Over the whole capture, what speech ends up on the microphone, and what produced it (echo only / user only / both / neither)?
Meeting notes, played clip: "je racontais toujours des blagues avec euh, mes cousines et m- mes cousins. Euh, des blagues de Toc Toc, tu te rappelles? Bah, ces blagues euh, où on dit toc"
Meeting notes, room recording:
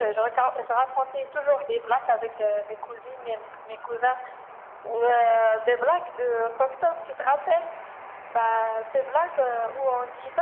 echo only